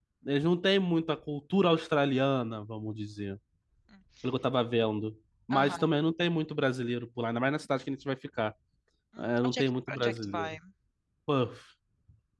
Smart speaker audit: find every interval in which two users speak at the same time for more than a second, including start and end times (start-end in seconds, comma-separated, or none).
9.2-10.6